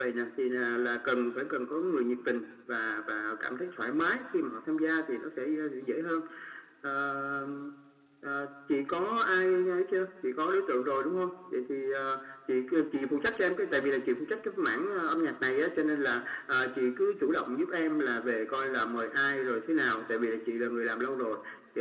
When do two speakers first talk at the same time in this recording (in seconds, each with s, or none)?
none